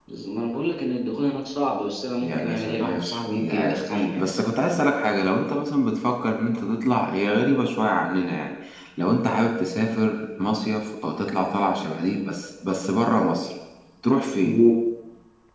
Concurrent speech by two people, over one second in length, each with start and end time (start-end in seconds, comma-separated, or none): 2.2-4.2